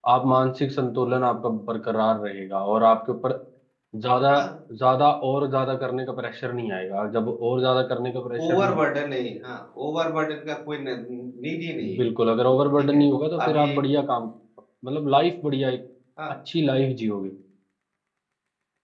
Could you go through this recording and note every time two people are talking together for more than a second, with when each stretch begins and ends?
none

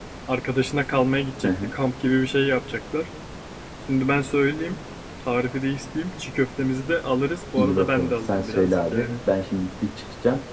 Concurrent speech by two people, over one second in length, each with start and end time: 7.6-9.2

